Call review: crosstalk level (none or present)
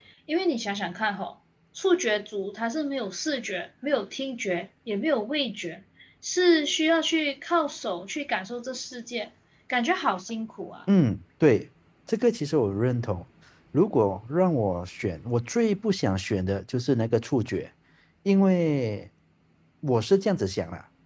none